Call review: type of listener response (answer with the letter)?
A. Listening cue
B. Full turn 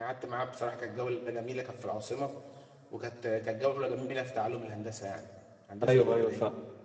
B